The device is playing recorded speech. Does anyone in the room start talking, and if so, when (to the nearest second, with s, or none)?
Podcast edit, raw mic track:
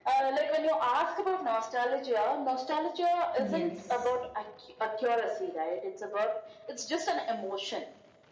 3 s